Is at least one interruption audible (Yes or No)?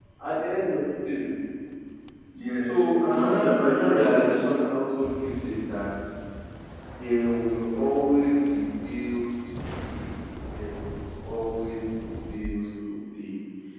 Yes